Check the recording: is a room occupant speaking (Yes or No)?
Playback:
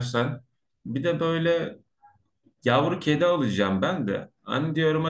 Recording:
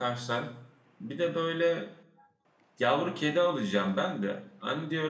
No